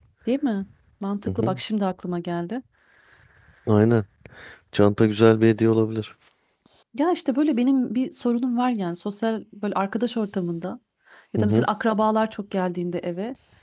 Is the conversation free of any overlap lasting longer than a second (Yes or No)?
Yes